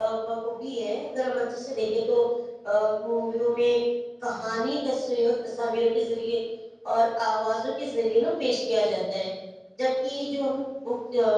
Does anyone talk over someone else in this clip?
No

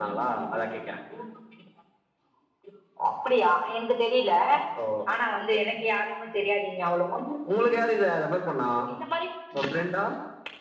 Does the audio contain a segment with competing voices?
No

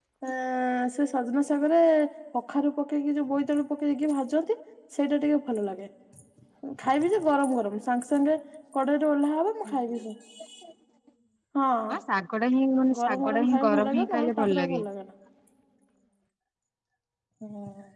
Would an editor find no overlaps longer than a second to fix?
No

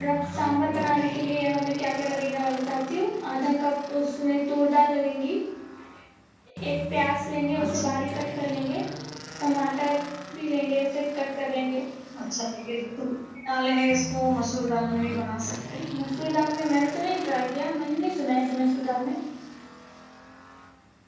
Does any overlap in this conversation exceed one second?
No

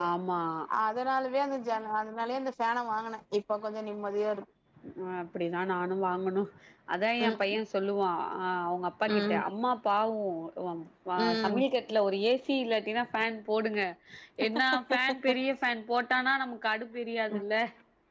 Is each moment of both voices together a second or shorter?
Yes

